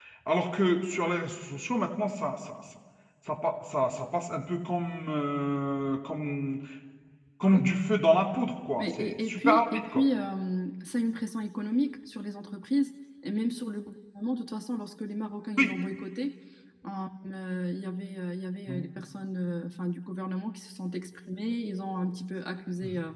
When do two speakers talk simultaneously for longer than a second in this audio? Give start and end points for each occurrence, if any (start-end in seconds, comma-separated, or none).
8.8-10.0